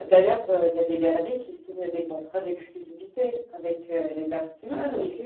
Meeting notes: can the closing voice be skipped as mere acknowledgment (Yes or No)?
Yes